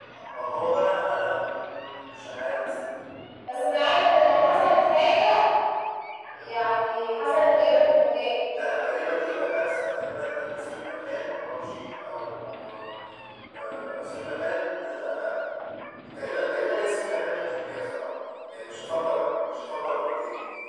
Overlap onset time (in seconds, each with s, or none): none